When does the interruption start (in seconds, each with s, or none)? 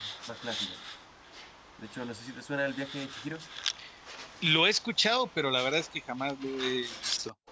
none